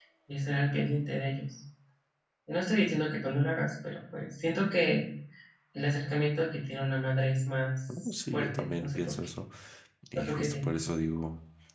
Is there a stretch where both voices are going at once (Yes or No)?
Yes